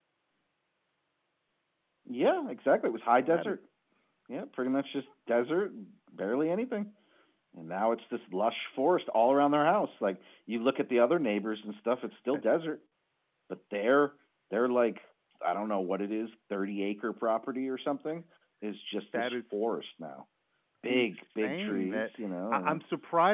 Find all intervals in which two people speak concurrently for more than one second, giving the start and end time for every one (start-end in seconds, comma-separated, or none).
20.9-22.1